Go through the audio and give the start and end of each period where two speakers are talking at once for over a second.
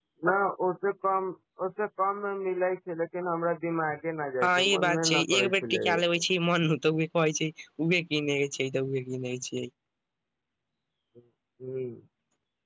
4.4-5.8

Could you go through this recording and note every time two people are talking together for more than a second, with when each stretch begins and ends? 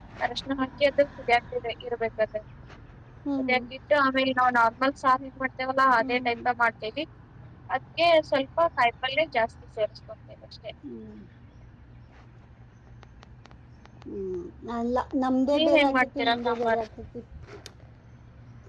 15.5-16.8

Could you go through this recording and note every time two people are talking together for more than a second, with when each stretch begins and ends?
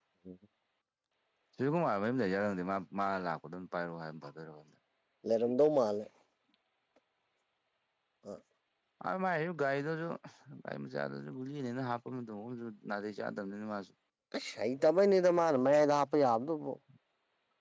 none

